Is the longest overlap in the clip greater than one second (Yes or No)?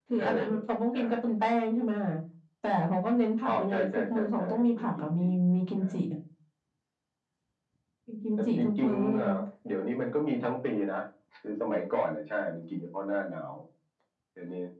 Yes